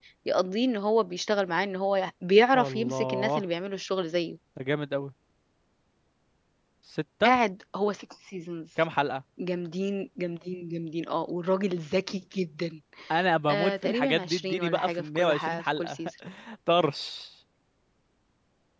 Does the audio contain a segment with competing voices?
Yes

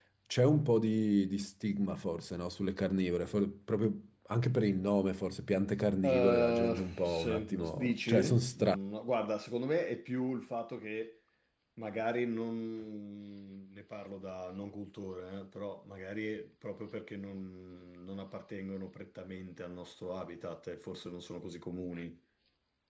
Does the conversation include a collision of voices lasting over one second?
Yes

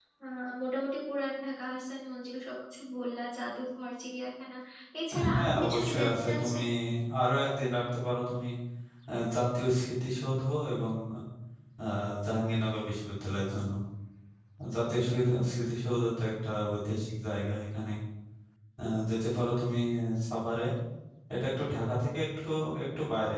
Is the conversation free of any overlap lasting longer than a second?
No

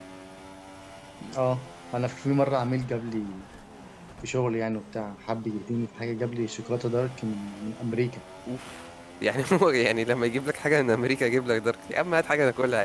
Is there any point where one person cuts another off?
No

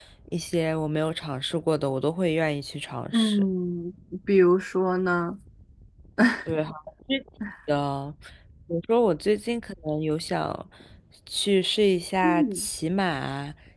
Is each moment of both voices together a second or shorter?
Yes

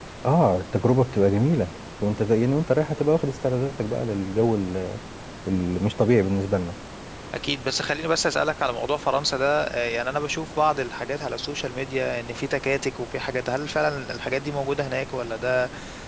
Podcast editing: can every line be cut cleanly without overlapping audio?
Yes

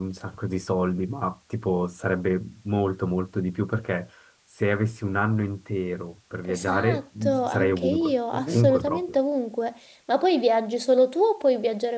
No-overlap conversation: No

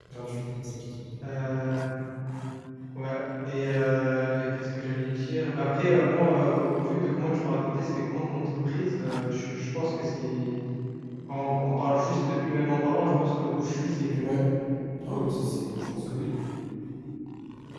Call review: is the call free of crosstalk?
Yes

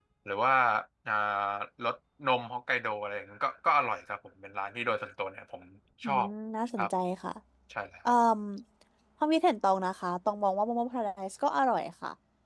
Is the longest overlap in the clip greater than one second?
No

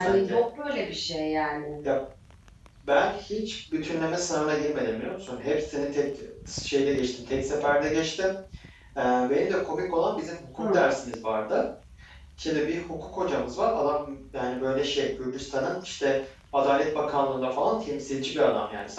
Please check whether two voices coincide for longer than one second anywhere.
No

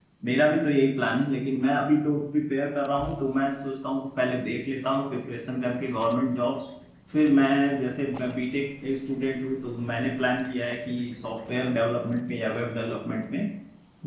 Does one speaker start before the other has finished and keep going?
No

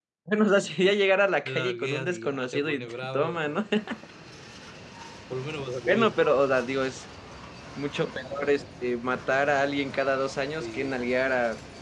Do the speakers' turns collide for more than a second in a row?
Yes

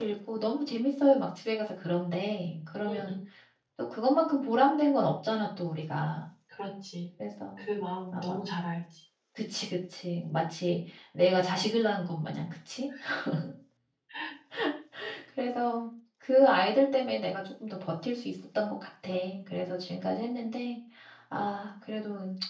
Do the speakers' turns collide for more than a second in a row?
No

